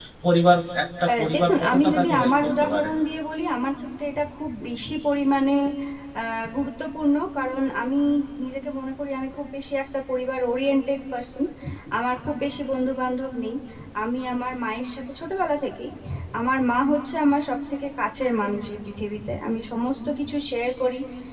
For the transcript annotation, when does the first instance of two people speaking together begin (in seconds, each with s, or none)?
1.2 s